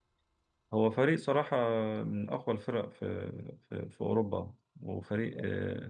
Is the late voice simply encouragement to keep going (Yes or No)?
Yes